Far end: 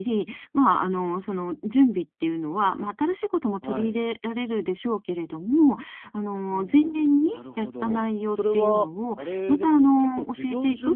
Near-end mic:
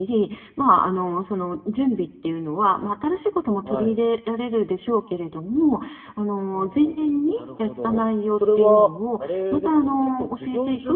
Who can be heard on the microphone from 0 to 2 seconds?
echo only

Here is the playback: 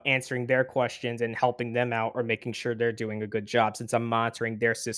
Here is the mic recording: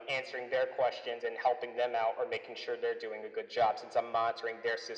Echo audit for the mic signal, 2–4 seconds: echo only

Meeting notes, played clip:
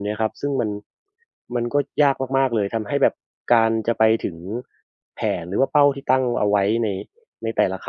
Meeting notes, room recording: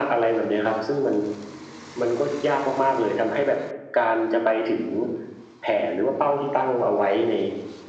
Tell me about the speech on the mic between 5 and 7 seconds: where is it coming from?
echo only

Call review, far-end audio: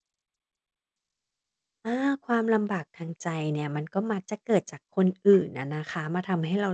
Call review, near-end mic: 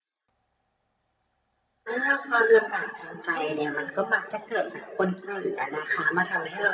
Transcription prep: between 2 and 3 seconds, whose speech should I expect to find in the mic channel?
echo only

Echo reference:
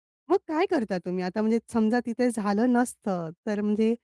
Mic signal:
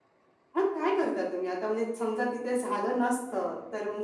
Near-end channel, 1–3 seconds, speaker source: echo only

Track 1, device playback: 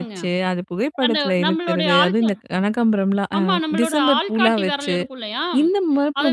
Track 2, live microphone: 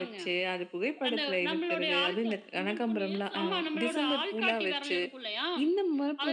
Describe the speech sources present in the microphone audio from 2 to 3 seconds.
both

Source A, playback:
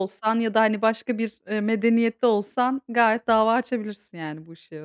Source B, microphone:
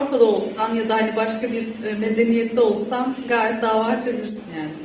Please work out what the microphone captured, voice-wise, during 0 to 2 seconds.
echo only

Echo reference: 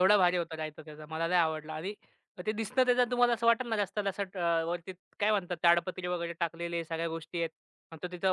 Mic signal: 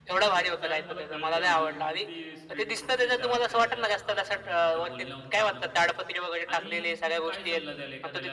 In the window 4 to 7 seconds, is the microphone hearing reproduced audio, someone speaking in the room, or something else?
both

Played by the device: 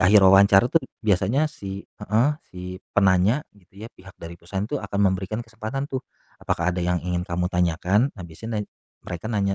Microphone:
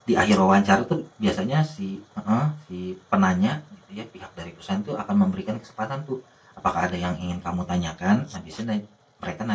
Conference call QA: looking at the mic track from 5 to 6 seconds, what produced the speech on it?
echo only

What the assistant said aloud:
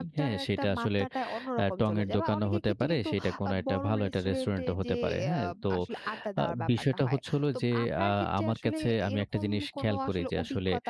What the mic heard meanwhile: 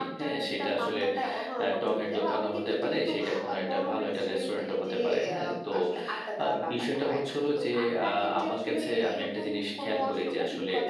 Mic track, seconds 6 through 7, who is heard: echo only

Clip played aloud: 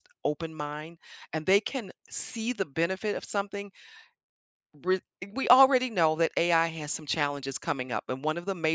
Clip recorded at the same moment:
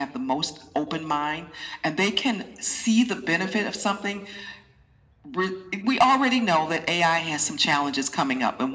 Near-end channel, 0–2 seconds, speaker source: echo only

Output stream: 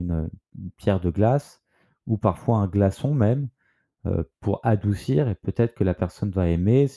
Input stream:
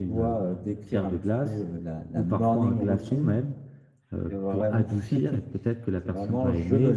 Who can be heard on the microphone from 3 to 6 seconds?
both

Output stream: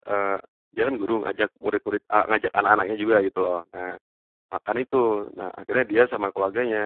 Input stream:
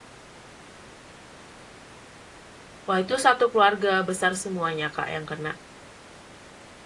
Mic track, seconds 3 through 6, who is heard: user only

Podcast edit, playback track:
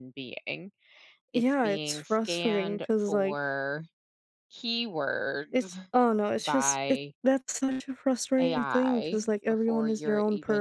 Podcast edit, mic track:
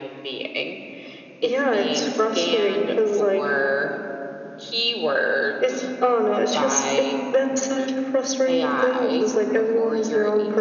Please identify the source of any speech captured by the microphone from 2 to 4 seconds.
echo only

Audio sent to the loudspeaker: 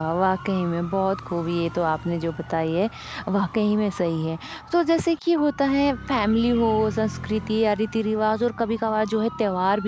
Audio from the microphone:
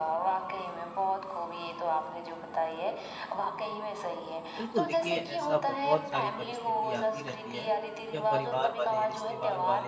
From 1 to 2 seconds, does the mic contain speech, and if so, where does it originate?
echo only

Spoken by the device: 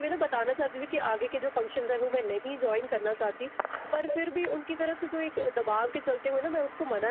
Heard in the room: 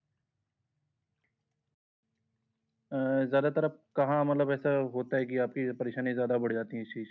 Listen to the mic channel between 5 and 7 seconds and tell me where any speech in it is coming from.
user only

